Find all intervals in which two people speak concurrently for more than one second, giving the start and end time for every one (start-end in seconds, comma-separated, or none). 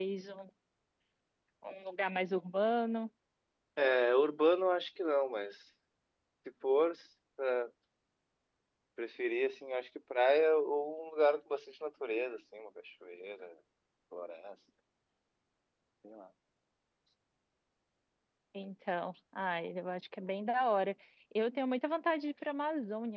none